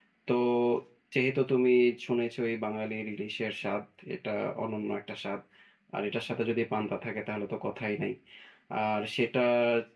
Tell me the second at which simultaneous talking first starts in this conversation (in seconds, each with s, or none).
none